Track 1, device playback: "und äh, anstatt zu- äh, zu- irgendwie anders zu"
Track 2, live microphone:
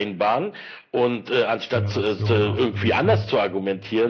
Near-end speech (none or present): present